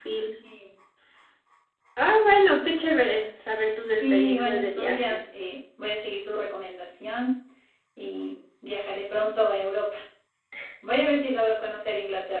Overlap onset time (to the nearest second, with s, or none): 4 s